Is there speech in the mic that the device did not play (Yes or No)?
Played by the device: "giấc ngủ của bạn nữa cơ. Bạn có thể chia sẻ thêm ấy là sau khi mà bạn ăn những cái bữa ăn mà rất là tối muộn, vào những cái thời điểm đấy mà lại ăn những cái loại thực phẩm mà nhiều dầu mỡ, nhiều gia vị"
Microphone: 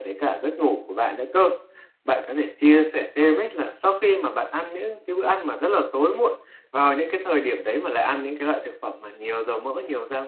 No